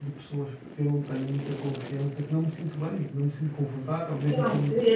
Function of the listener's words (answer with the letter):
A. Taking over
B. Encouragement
A